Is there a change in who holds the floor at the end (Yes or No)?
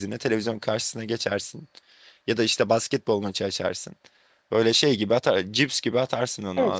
Yes